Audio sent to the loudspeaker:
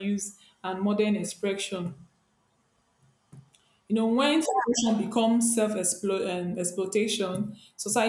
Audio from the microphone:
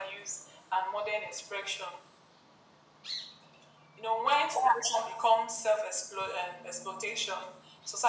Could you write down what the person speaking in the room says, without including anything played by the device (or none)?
none